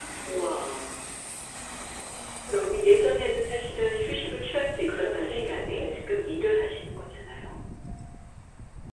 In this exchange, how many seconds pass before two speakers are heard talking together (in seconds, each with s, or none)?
4.9 s